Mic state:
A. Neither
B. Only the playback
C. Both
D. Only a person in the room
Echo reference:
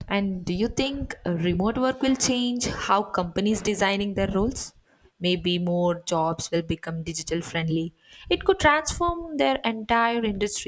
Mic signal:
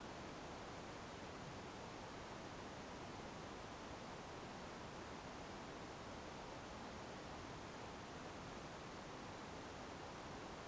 A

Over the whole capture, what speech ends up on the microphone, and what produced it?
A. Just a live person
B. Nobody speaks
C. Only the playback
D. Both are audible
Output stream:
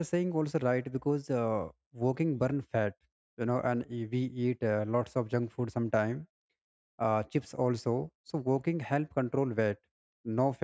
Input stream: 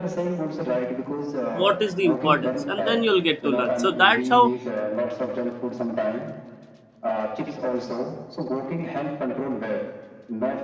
D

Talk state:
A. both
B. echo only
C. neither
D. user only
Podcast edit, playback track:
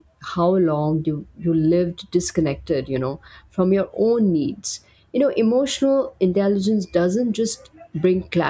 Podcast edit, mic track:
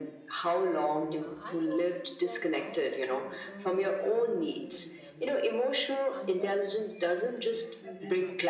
A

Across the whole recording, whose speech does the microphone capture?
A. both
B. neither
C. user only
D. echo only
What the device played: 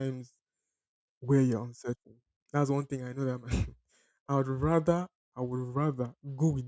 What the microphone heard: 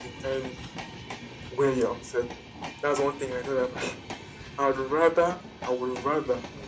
D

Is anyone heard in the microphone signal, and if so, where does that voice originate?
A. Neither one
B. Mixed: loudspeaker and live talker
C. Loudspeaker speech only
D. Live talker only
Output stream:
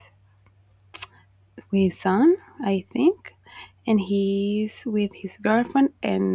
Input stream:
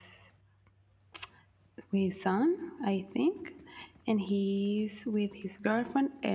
C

